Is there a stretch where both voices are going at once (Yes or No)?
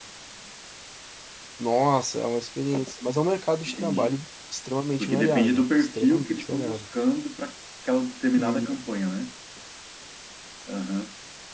Yes